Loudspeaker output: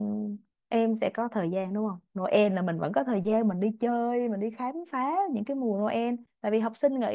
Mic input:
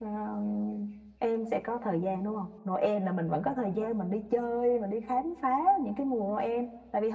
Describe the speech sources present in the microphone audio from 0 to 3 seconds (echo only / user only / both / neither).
echo only